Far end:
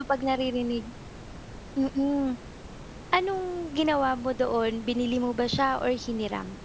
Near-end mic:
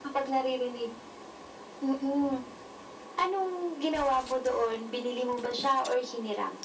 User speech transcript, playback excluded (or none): none